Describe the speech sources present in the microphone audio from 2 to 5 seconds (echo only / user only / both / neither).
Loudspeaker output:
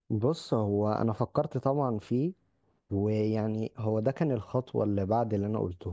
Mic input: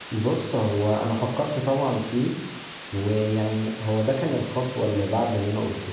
echo only